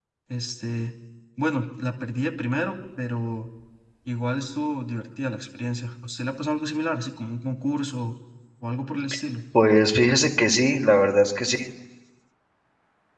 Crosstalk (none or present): none